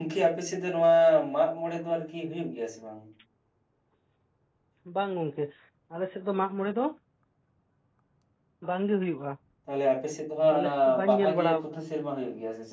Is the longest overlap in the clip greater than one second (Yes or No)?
Yes